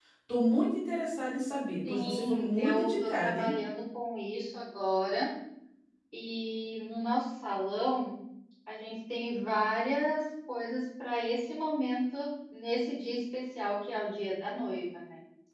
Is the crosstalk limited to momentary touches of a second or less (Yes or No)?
No